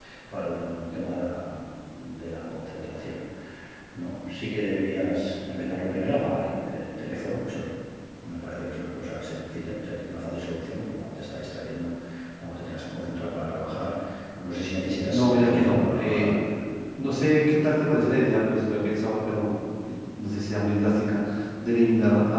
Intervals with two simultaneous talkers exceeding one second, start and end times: 15.1-16.4

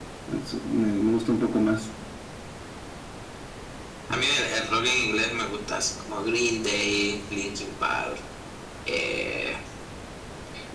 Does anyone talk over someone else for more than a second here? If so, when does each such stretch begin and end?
none

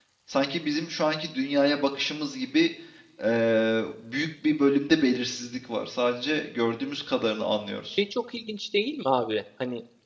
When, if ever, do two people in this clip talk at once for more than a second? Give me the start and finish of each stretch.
none

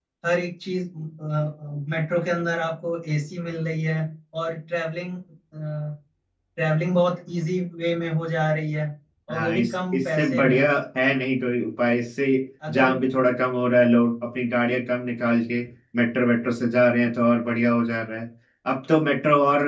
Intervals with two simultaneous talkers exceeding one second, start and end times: 9.3-10.6

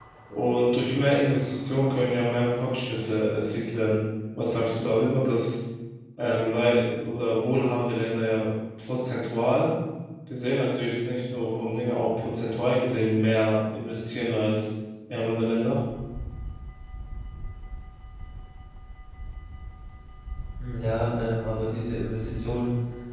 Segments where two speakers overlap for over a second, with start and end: none

